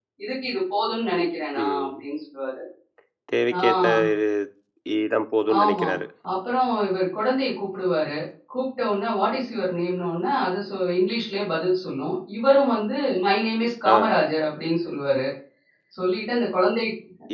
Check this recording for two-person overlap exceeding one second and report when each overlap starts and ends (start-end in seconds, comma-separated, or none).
none